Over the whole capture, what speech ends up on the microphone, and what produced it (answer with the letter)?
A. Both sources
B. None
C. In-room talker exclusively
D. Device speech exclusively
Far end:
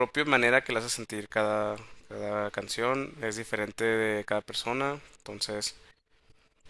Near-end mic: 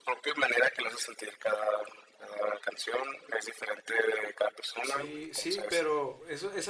A